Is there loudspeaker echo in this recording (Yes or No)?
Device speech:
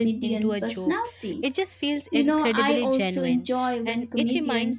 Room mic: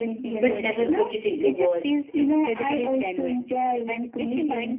Yes